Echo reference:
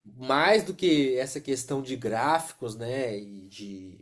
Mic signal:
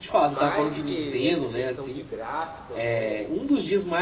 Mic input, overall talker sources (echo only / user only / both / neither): both